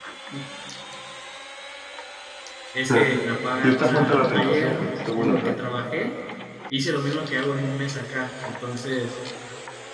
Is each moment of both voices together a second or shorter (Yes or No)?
No